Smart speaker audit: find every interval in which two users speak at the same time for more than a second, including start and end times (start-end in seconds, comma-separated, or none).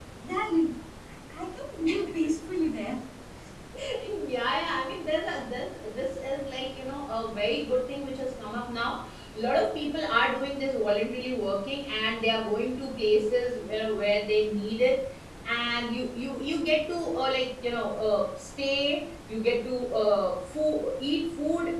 none